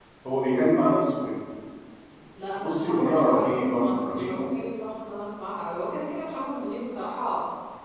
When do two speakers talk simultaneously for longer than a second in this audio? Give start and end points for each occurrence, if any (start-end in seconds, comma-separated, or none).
2.6-4.4